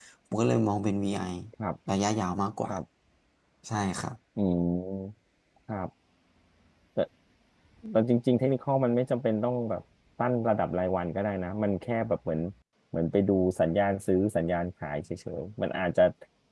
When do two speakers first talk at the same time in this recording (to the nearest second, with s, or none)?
none